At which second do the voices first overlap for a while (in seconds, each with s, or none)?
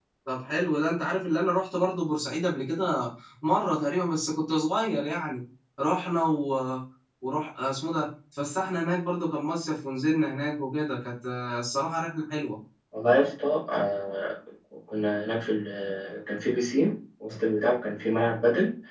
none